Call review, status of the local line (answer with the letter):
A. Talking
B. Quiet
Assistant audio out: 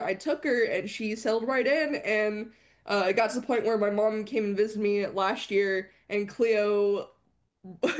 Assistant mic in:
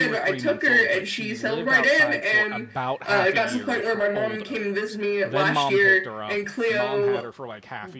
A